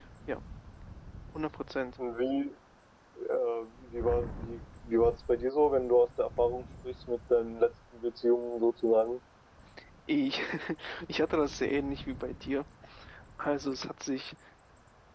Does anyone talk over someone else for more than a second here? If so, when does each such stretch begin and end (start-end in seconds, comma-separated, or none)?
none